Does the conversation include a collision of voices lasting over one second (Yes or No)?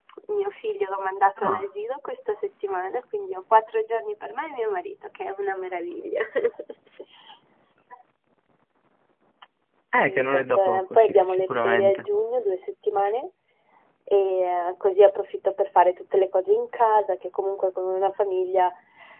Yes